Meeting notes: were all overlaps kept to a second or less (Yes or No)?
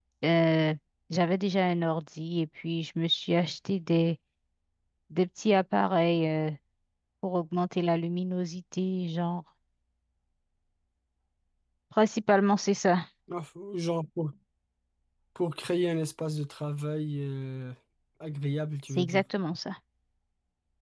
Yes